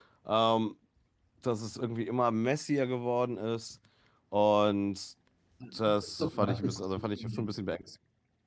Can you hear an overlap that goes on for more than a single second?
Yes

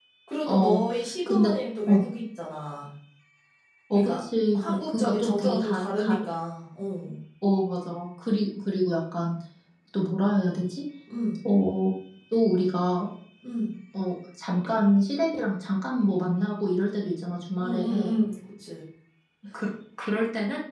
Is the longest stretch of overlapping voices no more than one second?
No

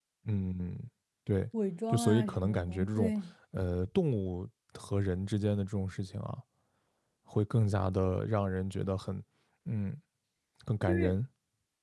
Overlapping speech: Yes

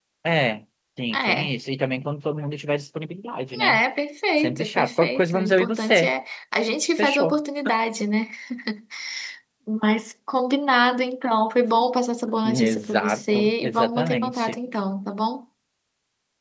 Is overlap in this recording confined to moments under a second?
No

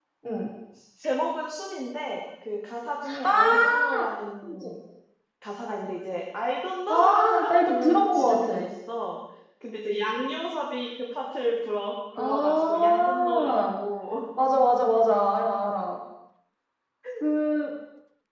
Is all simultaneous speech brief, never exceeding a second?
No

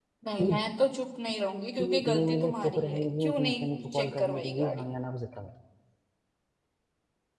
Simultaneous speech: Yes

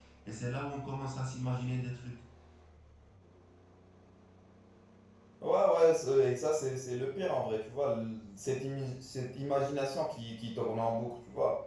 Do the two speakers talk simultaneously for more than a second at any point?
No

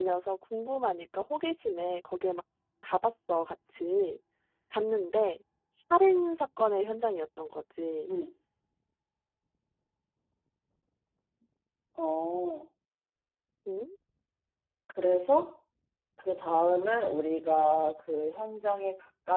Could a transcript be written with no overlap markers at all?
Yes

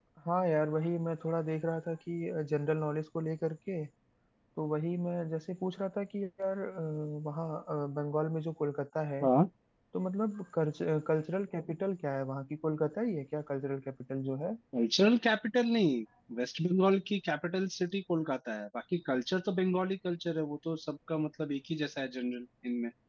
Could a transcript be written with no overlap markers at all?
Yes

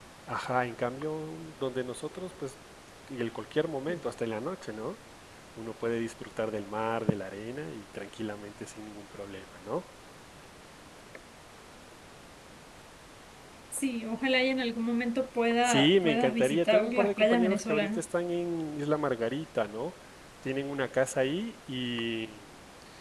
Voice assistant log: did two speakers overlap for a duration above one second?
Yes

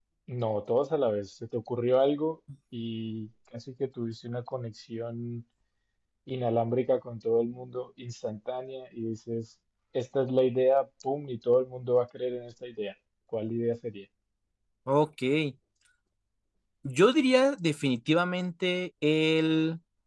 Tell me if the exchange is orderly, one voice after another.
Yes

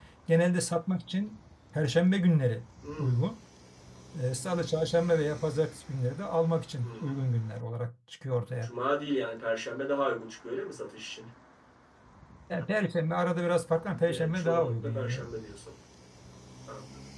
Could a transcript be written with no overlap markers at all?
No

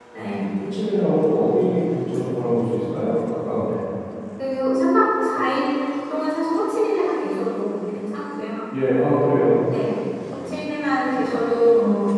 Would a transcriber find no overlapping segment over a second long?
Yes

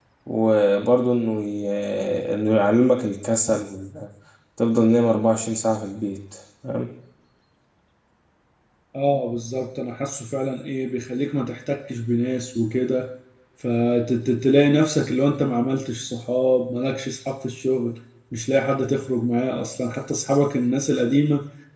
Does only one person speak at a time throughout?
Yes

